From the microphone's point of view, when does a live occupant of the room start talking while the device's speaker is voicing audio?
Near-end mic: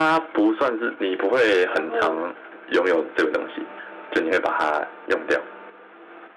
1.7 s

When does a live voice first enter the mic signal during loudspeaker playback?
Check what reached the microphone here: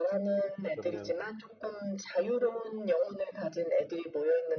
0.7 s

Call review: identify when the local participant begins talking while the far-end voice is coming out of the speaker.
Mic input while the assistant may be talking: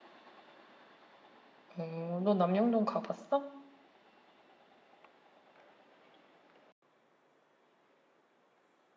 1.8 s

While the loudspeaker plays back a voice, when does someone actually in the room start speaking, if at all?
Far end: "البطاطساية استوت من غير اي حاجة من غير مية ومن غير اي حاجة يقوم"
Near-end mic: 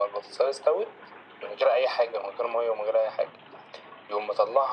none

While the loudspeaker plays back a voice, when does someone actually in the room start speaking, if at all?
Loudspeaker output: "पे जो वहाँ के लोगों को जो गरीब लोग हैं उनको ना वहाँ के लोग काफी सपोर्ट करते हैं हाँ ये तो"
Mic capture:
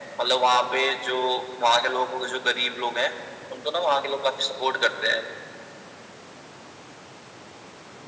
none

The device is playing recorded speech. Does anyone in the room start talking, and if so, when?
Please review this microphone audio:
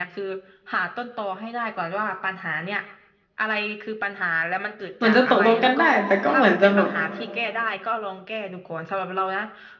5.0 s

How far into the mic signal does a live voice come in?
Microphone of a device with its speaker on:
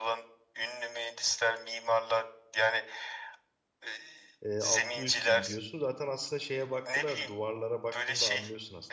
4.4 s

